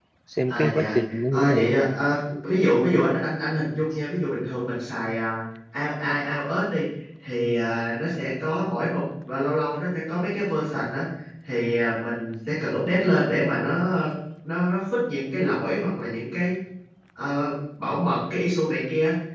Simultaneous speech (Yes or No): Yes